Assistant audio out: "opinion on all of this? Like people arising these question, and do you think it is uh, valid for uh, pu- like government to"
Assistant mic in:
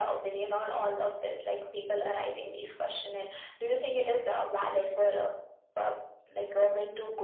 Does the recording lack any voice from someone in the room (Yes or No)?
Yes